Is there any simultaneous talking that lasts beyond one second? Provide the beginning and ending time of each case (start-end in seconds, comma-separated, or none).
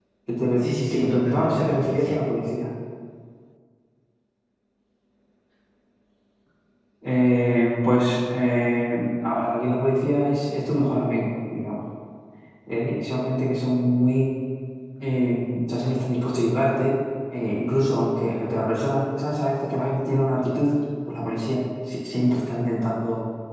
0.9-2.2